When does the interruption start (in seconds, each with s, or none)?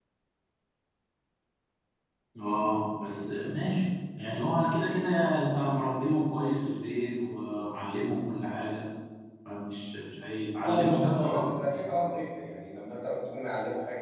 10.6 s